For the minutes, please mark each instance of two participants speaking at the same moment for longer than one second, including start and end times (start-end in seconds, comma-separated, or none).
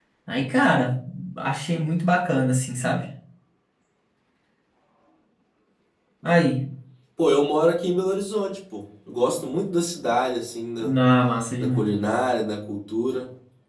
none